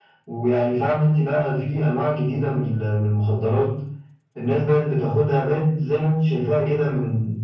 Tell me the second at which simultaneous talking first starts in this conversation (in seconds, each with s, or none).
none